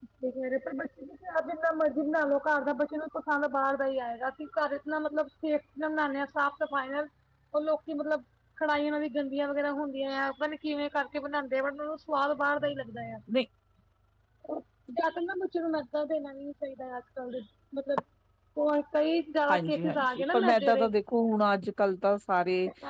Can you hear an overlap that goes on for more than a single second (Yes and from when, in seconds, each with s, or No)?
Yes, from 19.5 s